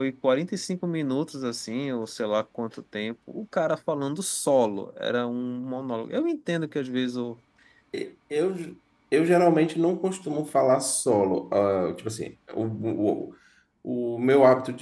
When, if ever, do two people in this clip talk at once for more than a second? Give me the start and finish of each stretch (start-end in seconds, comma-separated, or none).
none